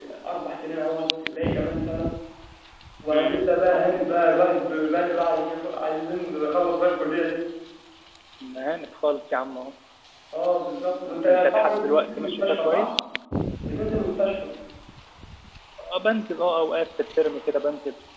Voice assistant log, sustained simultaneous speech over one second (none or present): present